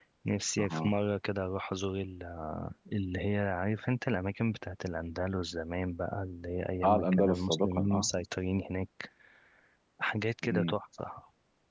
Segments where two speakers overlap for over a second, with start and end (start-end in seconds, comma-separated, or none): 6.8-8.1